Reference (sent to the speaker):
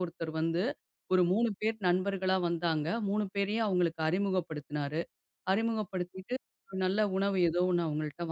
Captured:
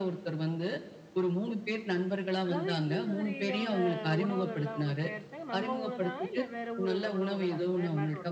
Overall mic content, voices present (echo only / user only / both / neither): both